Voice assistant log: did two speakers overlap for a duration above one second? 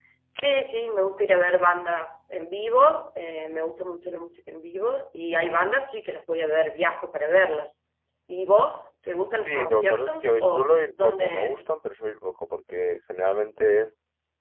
Yes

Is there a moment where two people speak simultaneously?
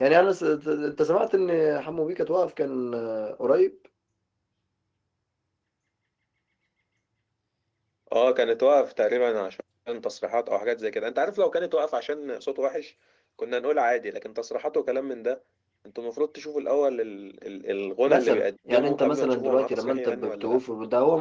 Yes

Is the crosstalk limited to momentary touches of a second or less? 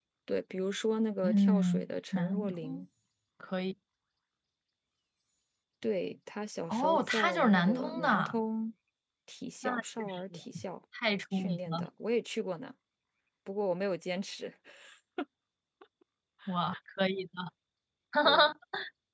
No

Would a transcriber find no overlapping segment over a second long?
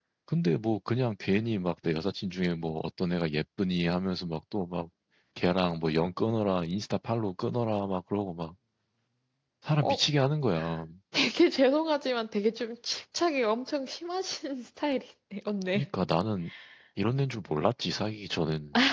Yes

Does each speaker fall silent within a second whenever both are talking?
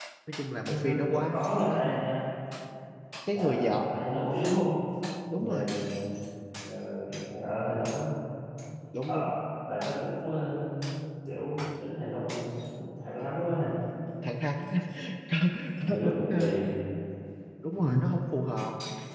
No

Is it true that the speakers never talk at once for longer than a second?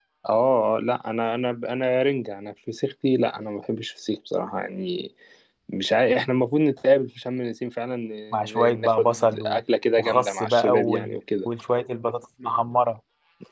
No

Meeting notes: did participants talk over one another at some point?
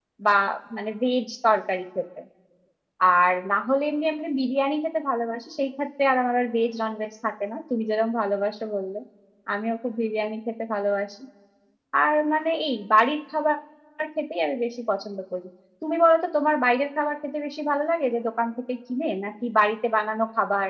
No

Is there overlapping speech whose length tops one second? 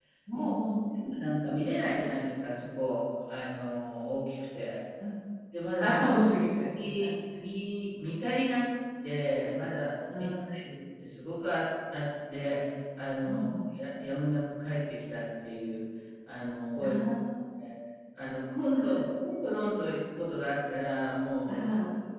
No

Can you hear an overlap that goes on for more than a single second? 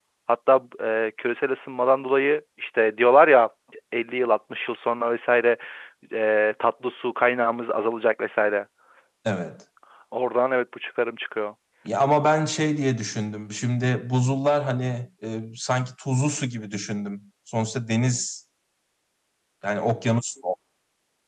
No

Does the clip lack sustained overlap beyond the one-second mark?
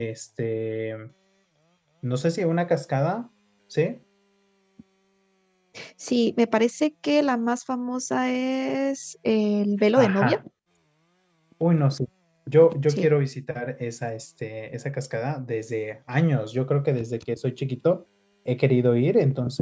Yes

